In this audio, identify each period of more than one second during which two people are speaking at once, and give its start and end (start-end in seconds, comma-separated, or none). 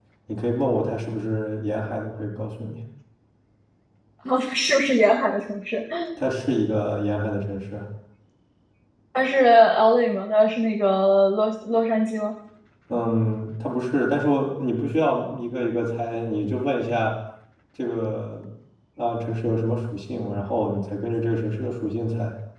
none